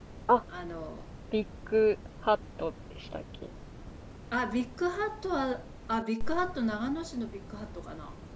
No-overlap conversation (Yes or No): Yes